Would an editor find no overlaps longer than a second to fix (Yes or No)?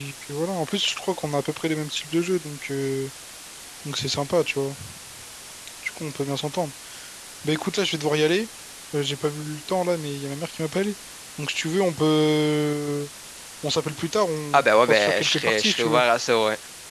No